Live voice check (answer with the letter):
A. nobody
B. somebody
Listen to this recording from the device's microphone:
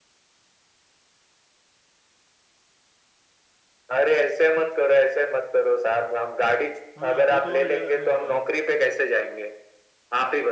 B